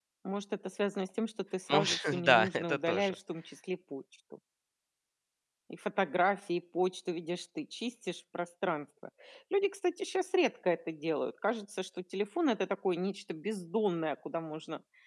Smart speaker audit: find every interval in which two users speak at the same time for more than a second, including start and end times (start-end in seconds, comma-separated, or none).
1.7-3.1